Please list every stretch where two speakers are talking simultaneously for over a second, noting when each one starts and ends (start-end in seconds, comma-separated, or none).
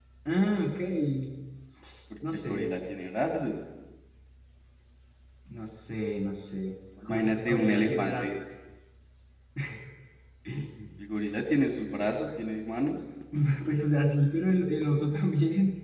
7.0-8.3